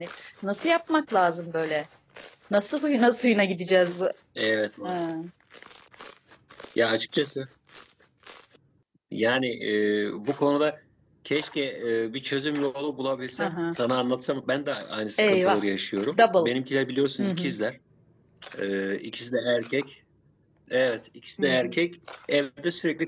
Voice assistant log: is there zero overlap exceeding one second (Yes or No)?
Yes